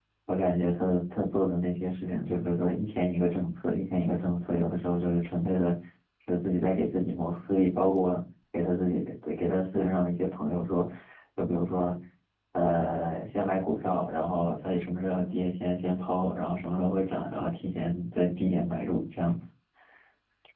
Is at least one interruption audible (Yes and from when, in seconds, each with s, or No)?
No